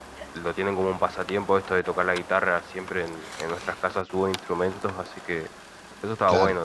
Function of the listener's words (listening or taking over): taking over